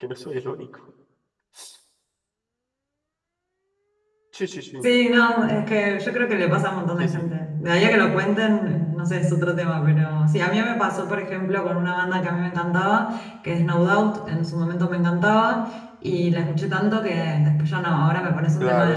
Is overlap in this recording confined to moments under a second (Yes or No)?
Yes